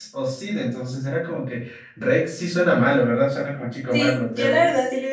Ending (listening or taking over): taking over